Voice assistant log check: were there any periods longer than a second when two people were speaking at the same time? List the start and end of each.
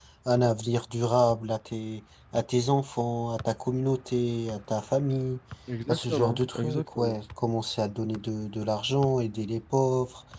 5.9-7.2

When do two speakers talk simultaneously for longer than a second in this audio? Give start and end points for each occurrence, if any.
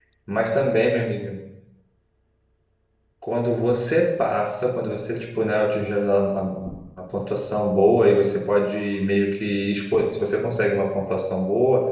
none

